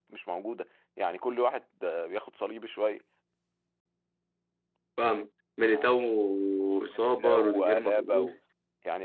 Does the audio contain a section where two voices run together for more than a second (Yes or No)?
Yes